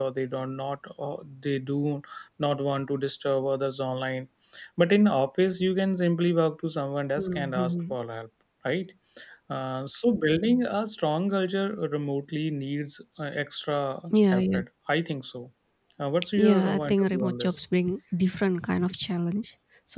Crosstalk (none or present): present